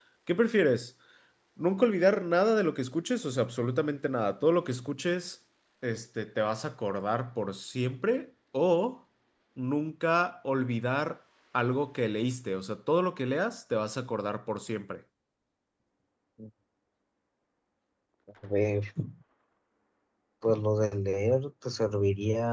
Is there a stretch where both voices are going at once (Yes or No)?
No